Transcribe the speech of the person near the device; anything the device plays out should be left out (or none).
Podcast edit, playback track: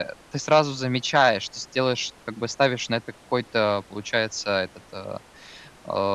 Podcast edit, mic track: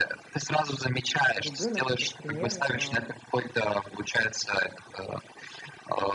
ребенок этот пример а,